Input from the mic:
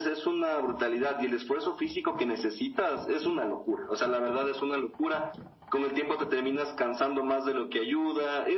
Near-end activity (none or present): none